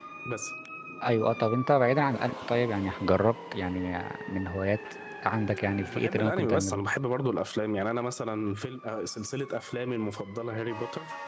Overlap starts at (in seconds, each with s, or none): 5.6 s